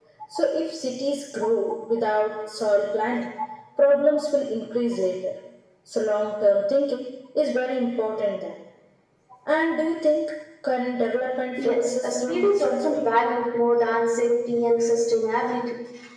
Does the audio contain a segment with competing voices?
Yes, from 11.6 s

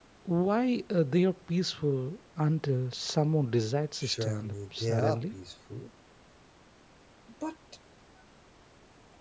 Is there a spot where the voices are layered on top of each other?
Yes, from 4.0 s

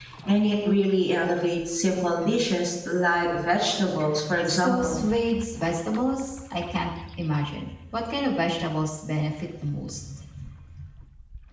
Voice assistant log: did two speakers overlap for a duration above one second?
No

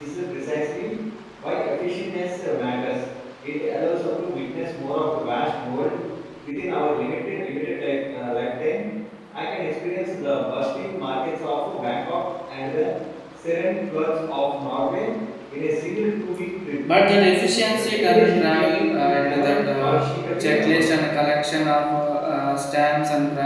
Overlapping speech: Yes, from 17.7 s

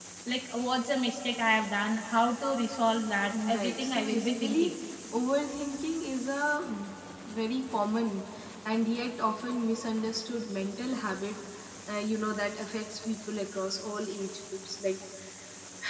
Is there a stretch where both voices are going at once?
Yes, from 3.3 s

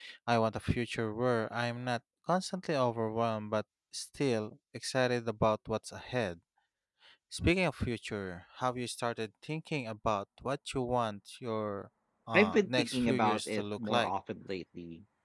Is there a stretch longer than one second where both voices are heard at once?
Yes, from 12.3 s

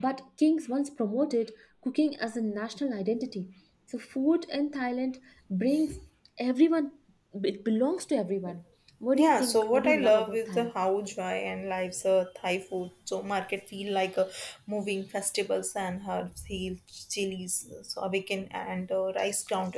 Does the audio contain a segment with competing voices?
Yes, from 9.1 s

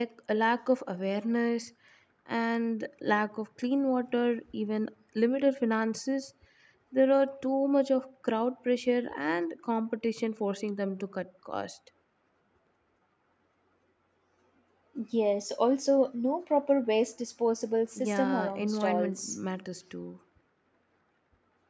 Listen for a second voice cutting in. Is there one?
Yes, from 18.0 s

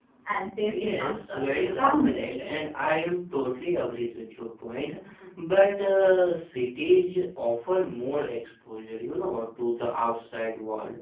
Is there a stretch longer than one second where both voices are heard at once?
Yes, from 0.8 s

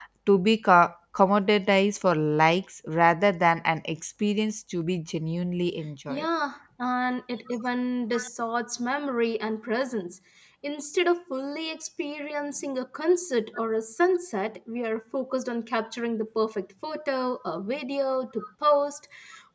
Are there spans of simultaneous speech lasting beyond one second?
No

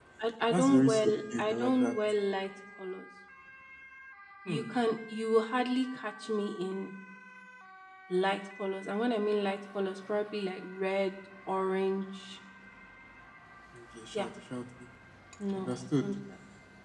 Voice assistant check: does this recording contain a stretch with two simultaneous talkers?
Yes, from 0.5 s

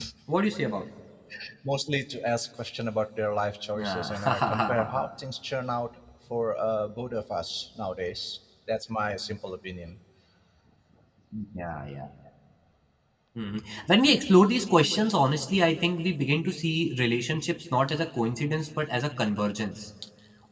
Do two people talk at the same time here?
Yes, from 3.8 s

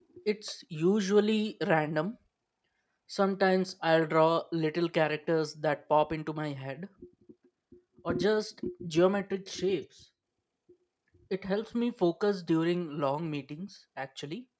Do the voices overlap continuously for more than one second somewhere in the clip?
No

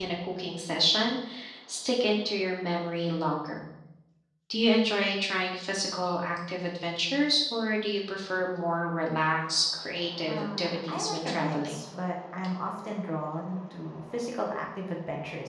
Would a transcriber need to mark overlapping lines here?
Yes, from 10.3 s

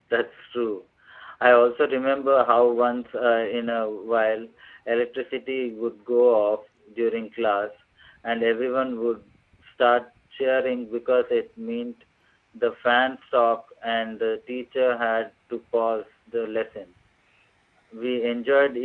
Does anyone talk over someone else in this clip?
No

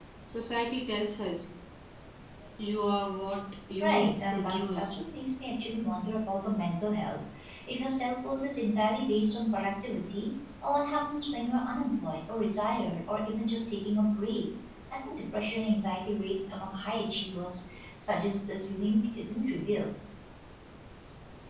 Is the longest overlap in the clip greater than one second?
Yes, from 3.8 s

